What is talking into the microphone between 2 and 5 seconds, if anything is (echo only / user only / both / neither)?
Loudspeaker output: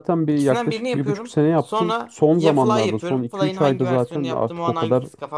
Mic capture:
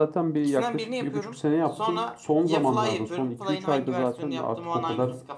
echo only